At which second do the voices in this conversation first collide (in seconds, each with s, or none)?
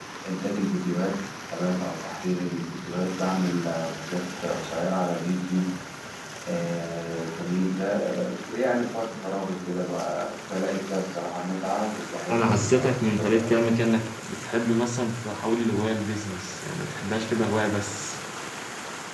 12.3 s